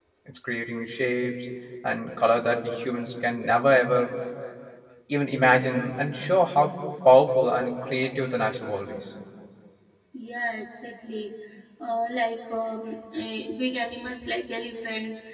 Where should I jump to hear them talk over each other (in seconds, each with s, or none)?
none